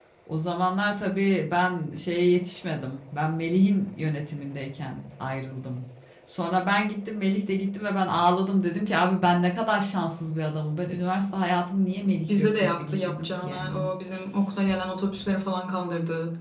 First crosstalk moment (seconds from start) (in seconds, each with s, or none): 12.4 s